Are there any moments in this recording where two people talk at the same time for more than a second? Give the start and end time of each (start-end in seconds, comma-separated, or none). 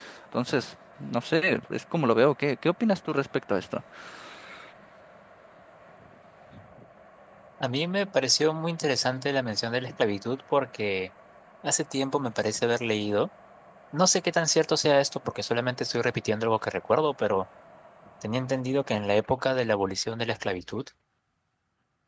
none